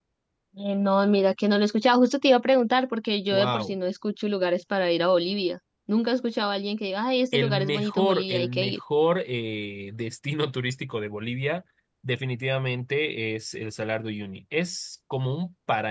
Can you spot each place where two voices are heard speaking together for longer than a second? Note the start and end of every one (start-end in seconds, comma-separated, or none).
7.3-8.8